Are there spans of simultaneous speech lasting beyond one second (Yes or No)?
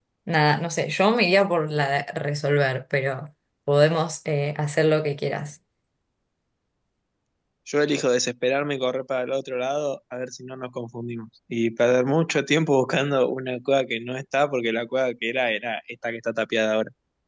No